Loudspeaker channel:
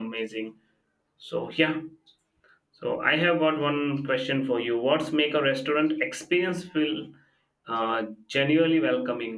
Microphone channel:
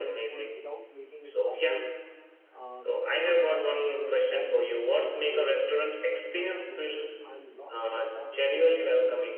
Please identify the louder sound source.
echo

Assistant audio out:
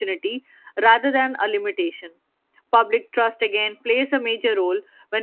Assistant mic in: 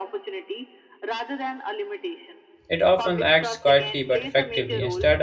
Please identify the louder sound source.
user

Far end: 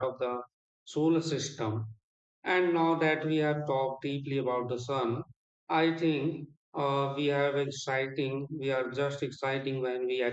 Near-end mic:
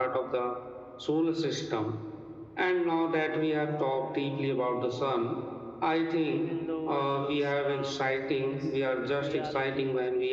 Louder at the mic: echo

